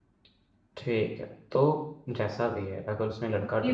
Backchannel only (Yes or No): No